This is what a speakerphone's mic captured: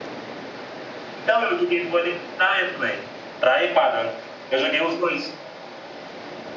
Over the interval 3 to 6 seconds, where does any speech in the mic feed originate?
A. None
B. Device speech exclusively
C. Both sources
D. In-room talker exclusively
B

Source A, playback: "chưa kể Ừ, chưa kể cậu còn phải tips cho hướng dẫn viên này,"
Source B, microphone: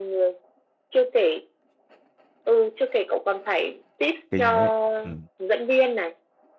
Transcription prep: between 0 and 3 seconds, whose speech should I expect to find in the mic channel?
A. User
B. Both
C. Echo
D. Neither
C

